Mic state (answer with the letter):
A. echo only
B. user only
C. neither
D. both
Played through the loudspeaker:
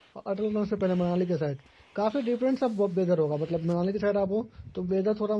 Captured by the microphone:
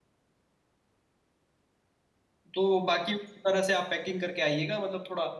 B